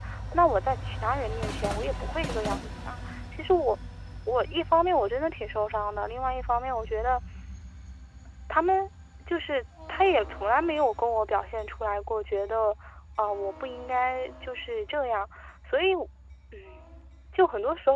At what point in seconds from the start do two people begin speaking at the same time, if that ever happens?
none

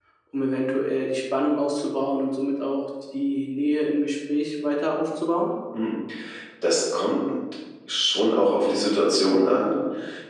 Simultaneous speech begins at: none

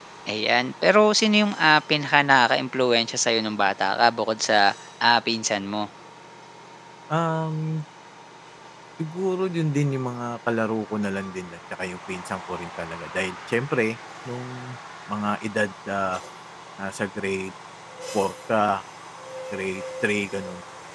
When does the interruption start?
none

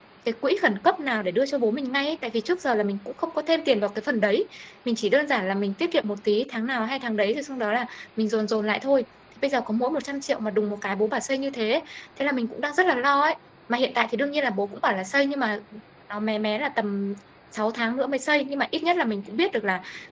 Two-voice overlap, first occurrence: none

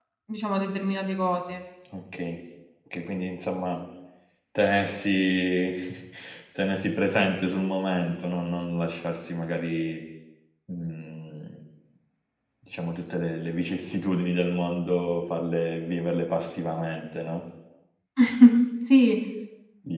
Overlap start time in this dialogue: none

